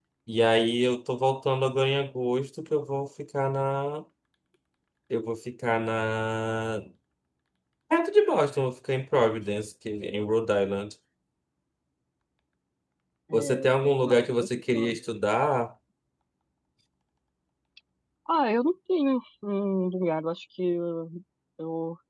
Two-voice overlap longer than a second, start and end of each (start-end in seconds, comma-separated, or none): 13.3-15.0